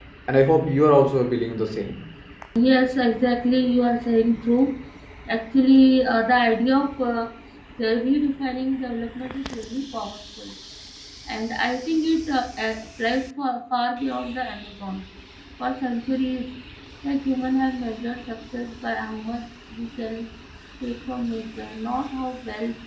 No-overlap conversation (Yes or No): Yes